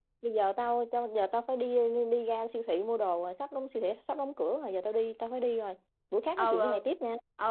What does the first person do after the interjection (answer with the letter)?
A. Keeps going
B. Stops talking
B